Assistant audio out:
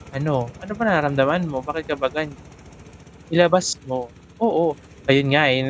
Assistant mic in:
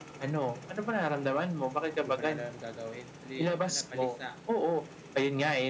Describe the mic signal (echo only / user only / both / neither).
both